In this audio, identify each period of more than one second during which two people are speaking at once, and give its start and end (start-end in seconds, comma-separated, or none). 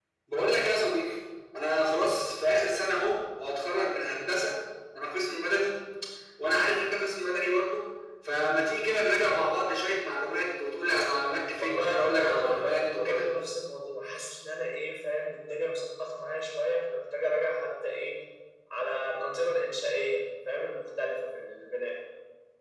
11.6-13.2